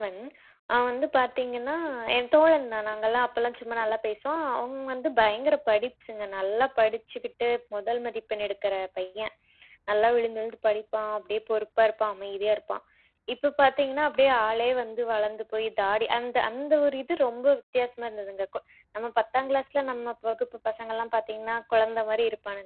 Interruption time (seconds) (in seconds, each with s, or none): none